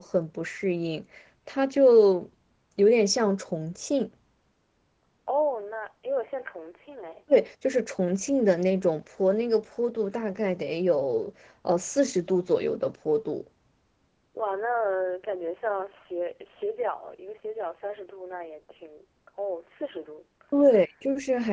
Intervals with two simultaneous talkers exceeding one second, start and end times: none

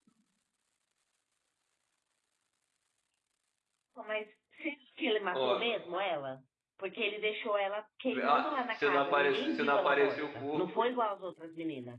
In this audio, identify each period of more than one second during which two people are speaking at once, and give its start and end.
8.1-10.9

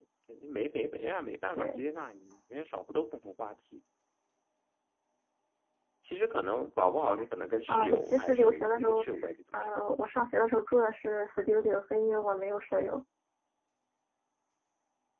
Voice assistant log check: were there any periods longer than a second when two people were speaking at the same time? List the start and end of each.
7.7-9.0

